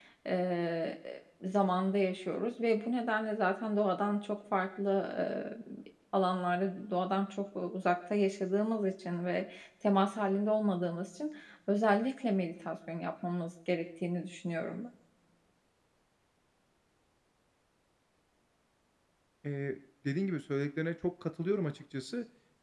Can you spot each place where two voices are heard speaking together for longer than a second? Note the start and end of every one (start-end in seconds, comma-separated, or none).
none